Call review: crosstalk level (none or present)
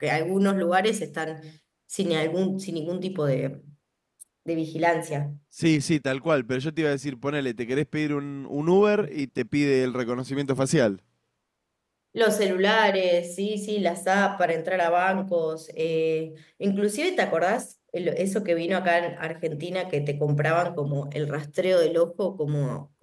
none